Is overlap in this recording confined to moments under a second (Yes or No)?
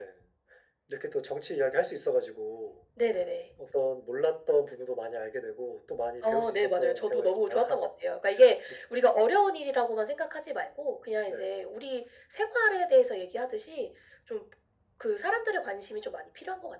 No